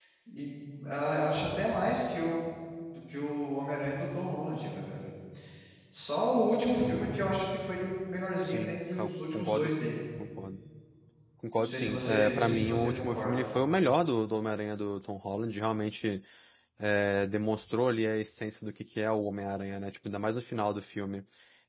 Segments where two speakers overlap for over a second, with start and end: 8.4-9.7, 11.5-13.5

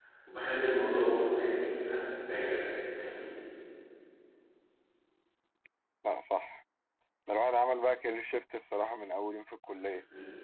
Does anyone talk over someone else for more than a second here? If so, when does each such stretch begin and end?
none

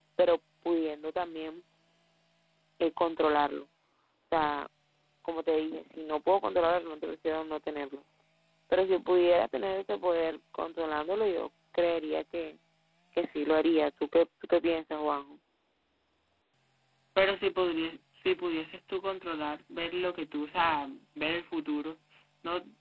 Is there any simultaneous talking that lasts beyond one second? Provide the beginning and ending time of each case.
none

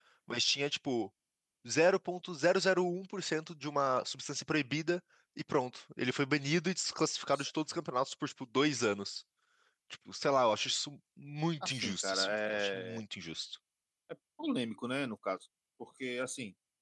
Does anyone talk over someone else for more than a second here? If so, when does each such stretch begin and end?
11.6-13.0

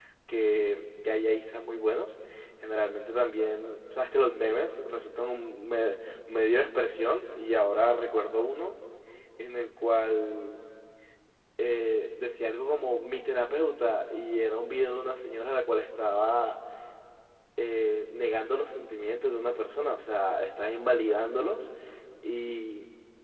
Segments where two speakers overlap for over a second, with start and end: none

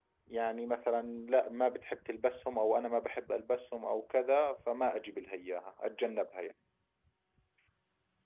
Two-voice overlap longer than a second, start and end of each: none

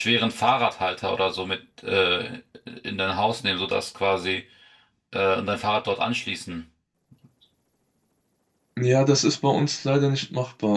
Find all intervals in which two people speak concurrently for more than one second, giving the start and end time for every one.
none

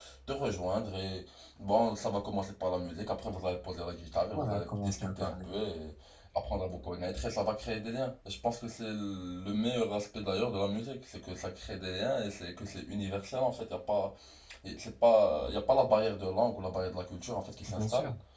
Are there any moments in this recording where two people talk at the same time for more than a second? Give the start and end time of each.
4.3-5.6

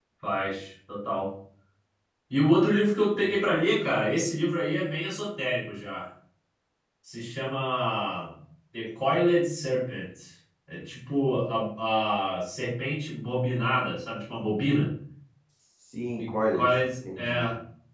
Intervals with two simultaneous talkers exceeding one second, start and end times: none

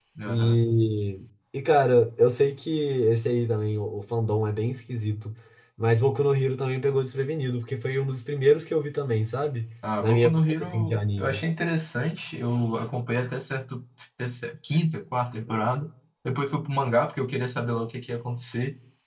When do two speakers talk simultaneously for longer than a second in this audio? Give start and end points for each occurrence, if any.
10.0-11.4

